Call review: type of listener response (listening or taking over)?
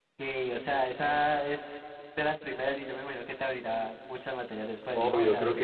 taking over